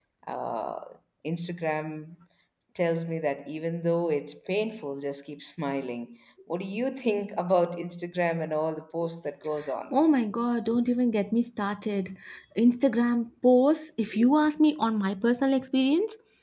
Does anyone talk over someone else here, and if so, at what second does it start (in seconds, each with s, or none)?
none